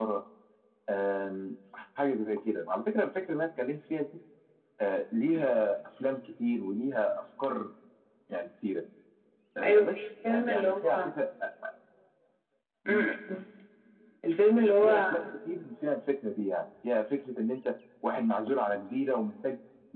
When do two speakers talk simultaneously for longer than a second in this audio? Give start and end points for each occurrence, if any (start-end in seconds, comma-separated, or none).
9.6-11.1